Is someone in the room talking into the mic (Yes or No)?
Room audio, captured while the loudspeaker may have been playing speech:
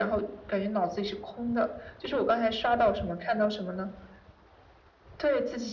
No